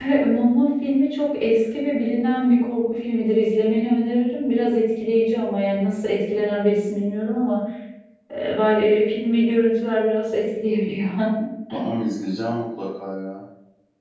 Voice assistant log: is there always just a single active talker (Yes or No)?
Yes